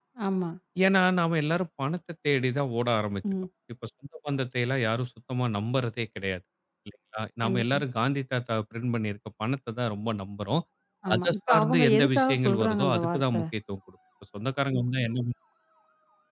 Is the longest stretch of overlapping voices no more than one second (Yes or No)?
No